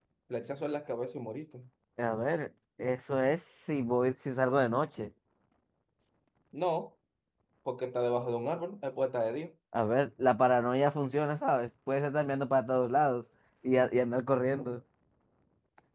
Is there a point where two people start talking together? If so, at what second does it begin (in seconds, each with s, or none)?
none